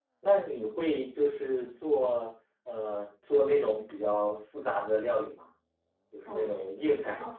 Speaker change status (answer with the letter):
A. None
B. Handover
B